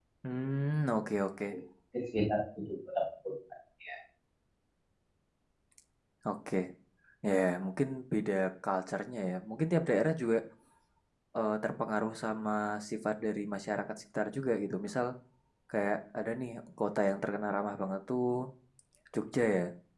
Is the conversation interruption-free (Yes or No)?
Yes